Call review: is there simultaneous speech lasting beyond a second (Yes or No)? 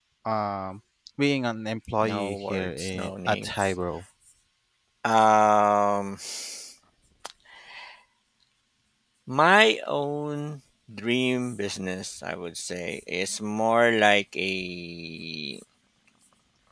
Yes